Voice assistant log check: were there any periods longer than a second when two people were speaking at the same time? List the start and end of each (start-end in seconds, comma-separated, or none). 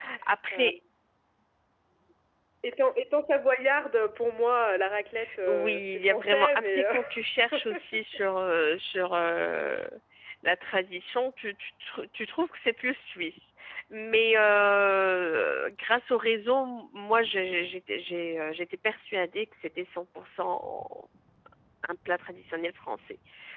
5.4-6.9